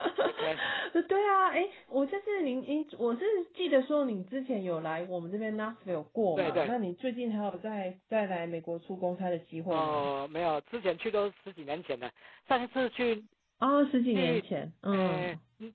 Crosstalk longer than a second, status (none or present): none